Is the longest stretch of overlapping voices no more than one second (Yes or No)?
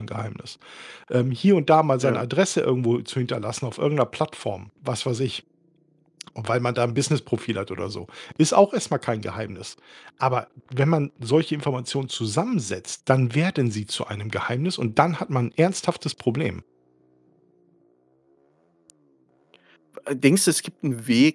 Yes